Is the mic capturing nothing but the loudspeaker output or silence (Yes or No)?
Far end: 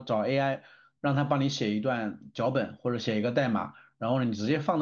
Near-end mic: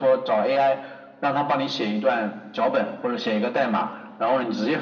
Yes